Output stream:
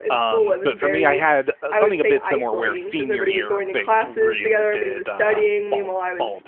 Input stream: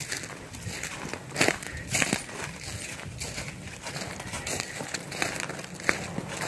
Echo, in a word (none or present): none